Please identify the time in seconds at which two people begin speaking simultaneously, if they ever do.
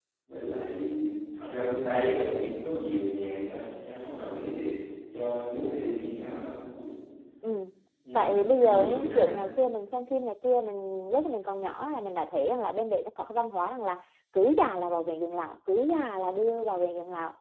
8.2 s

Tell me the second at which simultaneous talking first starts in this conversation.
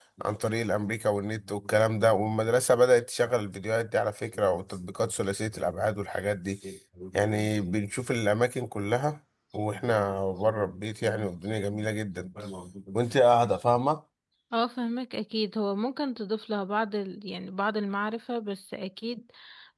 none

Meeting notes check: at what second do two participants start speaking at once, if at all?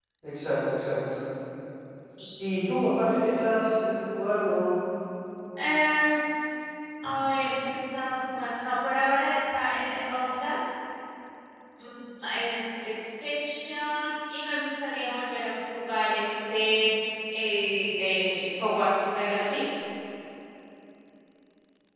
none

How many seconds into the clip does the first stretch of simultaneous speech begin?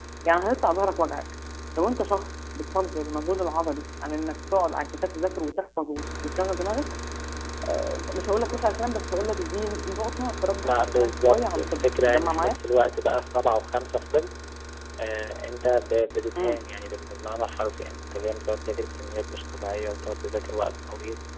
10.6 s

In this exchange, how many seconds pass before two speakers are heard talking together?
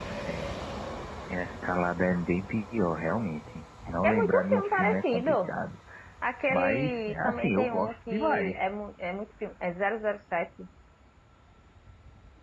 4.0 s

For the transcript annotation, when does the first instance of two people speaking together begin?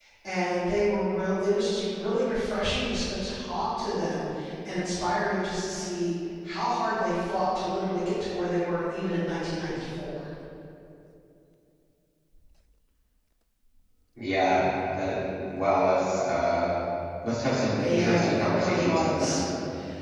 17.8 s

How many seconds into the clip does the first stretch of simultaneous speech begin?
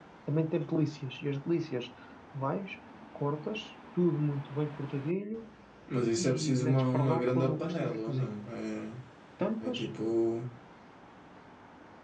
6.2 s

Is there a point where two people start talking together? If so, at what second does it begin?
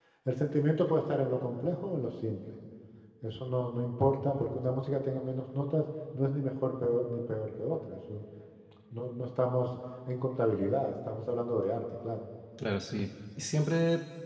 none

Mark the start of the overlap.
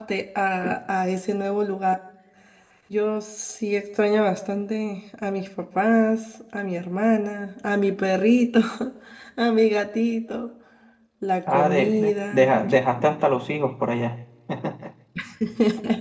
11.5 s

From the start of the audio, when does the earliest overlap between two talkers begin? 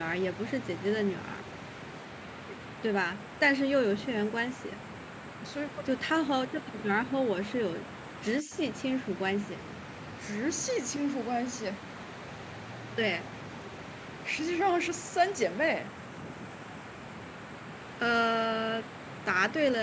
none

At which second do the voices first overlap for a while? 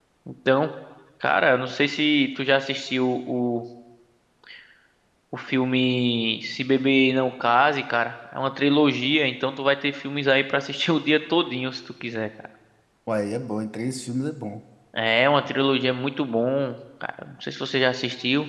none

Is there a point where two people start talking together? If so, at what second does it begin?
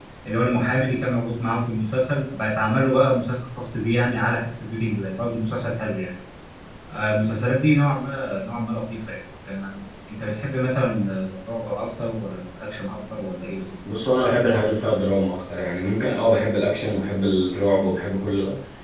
none

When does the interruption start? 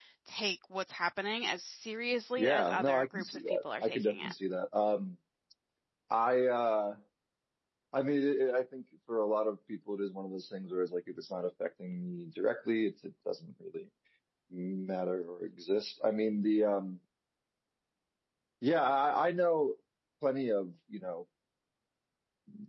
2.4 s

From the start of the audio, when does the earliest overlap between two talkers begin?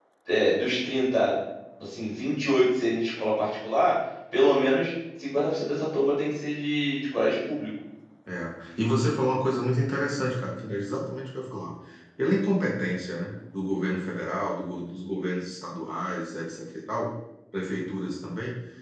none

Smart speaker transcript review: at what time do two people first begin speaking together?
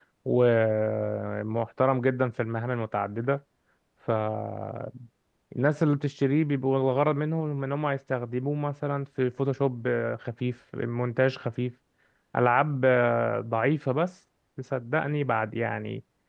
none

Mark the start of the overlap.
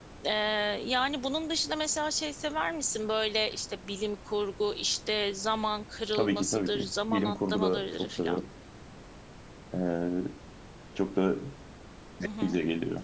6.1 s

